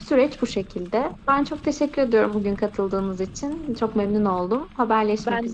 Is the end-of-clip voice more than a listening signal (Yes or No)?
Yes